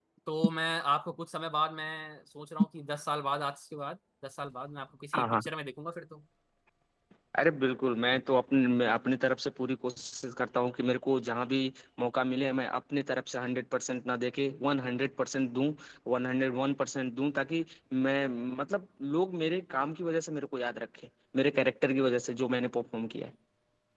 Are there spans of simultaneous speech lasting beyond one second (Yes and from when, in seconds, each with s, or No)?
No